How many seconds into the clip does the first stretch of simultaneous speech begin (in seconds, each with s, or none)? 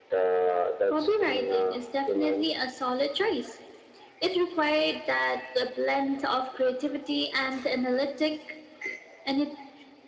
0.9 s